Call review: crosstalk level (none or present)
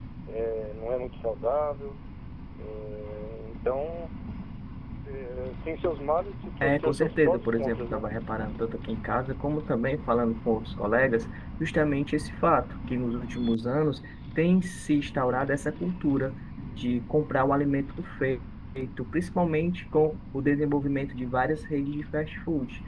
present